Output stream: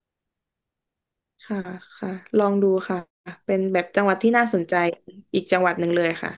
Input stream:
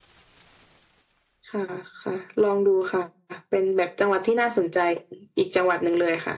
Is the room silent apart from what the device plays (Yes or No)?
Yes